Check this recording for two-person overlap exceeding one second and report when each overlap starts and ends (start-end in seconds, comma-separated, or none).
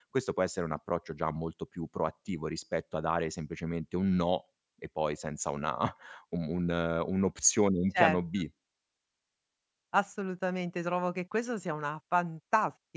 none